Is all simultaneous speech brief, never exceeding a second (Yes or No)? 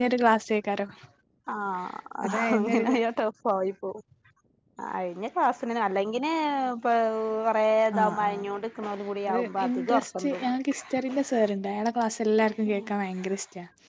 No